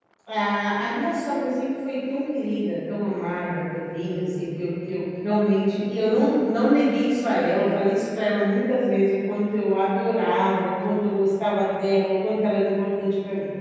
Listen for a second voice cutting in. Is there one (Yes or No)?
No